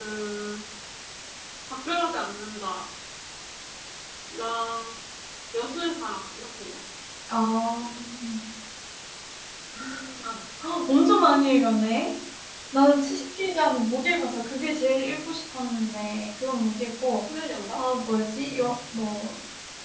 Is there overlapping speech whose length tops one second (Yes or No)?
No